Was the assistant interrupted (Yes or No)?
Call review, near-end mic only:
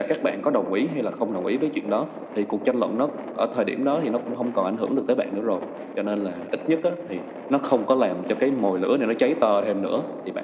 No